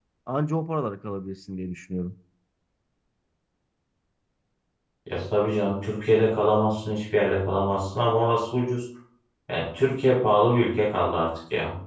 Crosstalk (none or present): none